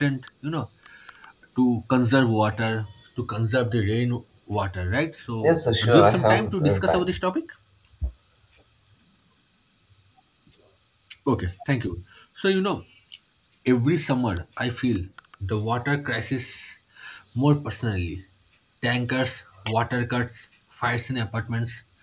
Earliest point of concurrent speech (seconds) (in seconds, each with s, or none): 5.4 s